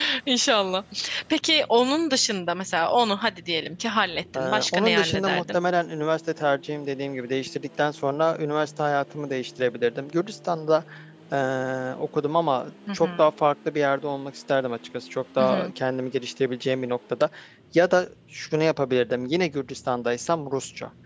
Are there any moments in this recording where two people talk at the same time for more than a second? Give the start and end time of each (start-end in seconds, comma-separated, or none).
4.3-5.6